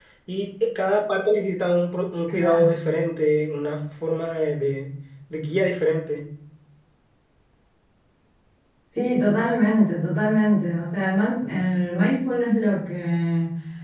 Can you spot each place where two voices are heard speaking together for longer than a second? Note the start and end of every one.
none

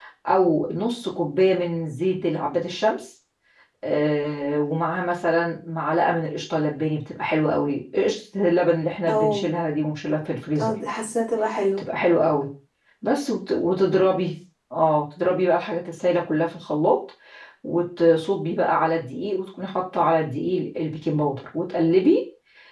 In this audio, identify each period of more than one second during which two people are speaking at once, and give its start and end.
none

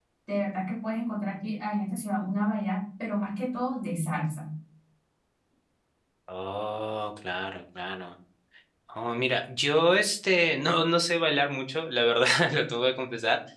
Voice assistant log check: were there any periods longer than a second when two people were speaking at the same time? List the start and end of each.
none

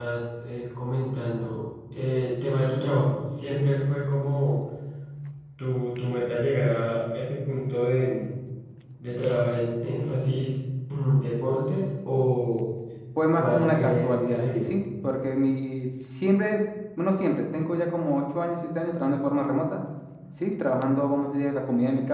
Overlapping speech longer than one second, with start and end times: 13.4-14.7

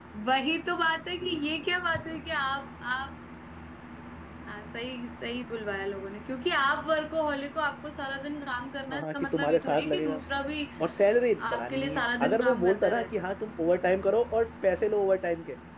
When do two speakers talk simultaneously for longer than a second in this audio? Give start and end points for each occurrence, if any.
8.9-10.2, 11.5-13.1

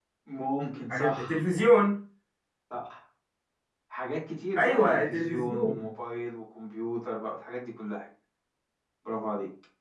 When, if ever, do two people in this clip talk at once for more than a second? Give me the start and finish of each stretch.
4.5-5.9

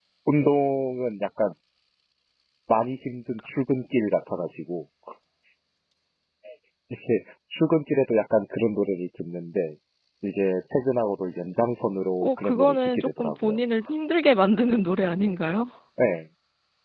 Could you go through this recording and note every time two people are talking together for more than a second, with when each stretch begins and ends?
12.2-13.6

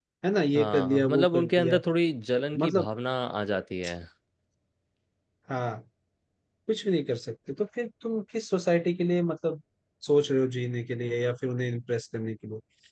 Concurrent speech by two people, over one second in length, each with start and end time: 0.6-1.8

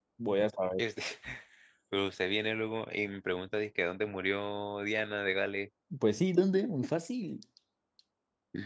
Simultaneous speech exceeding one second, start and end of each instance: none

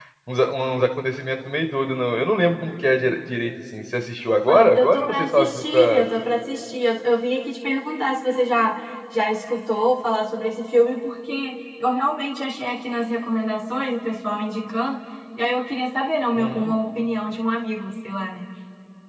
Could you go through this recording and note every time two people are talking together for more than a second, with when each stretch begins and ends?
4.5-6.1

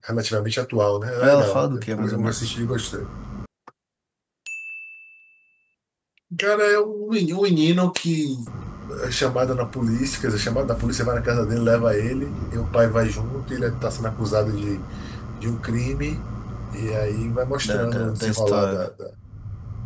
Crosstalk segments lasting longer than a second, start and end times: 1.2-2.5, 17.6-18.9

